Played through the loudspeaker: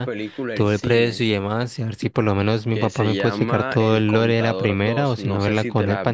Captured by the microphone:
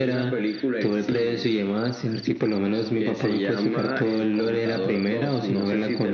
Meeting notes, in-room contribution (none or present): none